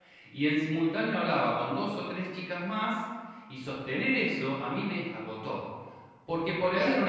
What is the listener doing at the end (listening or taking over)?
listening